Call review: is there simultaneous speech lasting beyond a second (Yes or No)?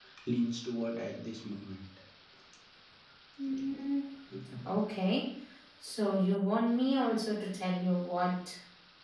No